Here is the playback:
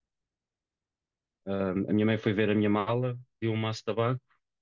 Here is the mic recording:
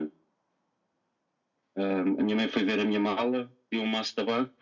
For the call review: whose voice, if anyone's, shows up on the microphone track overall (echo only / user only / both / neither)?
echo only